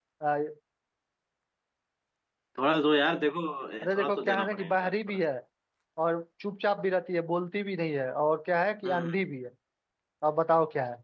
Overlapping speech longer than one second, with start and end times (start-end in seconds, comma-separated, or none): 3.8-5.2